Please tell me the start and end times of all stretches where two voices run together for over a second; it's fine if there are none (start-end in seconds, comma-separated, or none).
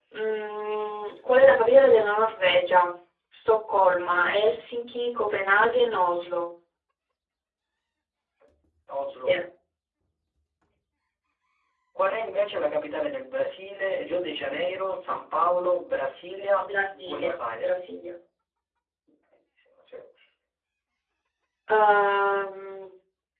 16.6-17.9